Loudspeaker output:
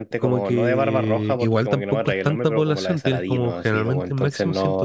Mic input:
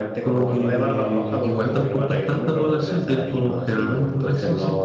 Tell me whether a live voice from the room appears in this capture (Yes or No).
No